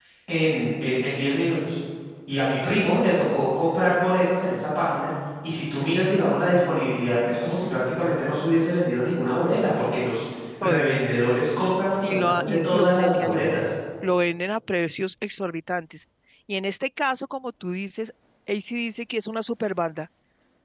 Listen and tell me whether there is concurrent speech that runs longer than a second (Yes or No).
Yes